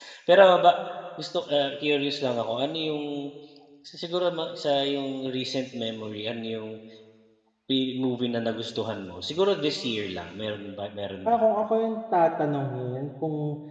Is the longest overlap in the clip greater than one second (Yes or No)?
No